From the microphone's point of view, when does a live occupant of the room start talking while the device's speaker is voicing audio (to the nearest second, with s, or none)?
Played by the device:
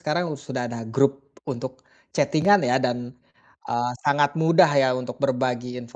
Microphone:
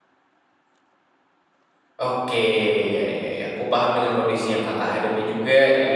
2 s